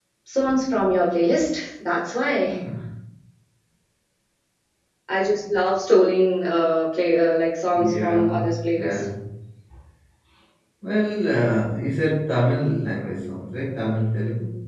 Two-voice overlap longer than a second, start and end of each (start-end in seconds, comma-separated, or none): 7.7-9.0